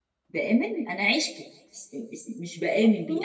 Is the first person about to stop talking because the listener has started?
No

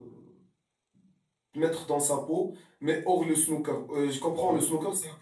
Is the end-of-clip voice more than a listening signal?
No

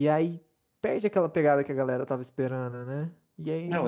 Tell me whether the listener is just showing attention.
Yes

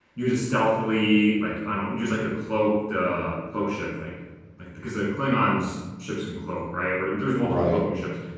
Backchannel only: Yes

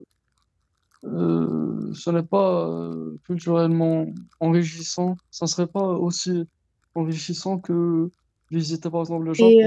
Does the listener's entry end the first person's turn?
Yes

